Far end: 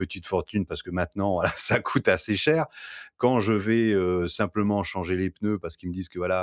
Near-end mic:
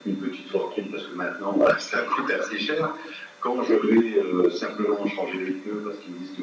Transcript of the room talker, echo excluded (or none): none